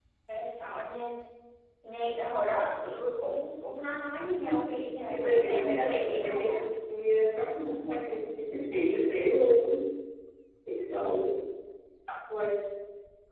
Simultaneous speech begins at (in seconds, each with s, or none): 5.1 s